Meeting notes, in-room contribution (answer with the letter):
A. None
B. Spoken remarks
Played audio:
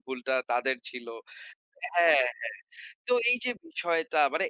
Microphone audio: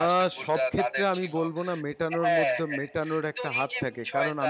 B